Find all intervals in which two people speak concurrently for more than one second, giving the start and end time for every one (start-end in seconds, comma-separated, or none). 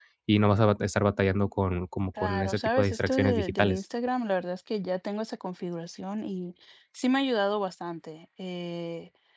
2.2-3.8